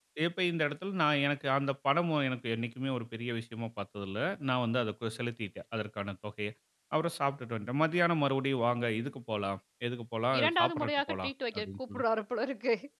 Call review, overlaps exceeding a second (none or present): present